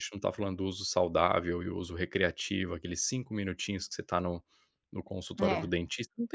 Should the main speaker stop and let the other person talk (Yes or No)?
No